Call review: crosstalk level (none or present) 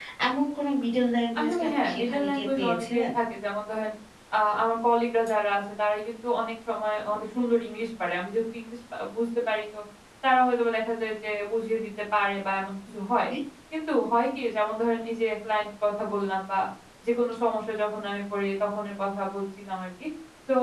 present